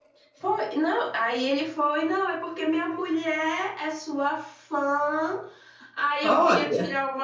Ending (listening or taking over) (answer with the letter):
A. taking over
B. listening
B